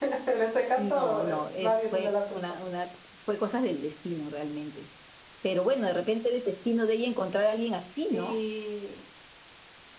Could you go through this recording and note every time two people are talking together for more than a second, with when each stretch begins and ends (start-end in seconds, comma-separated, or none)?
0.8-2.4